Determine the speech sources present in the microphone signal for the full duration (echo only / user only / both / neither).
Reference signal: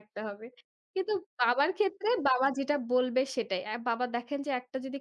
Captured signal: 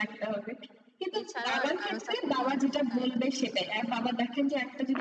both